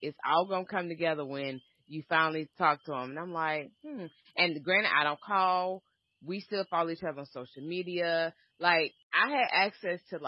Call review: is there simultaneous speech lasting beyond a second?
No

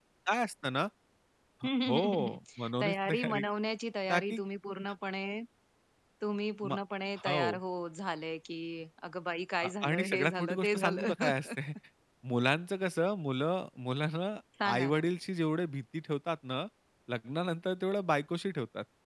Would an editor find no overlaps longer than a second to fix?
No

